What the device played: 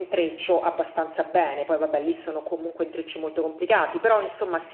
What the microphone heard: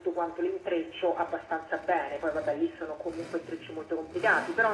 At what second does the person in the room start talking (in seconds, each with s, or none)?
none